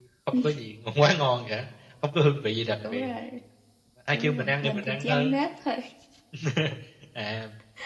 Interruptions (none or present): present